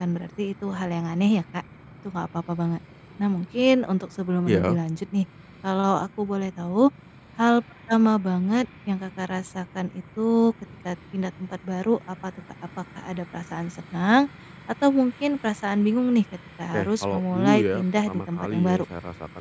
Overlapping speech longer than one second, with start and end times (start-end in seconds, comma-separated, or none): 16.7-18.9